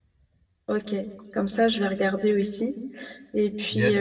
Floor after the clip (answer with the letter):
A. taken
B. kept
A